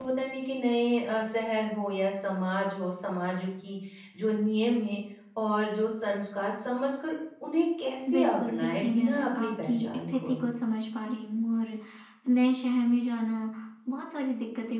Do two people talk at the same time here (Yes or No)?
Yes